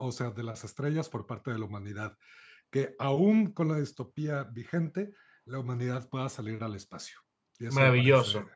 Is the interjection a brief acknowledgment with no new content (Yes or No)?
No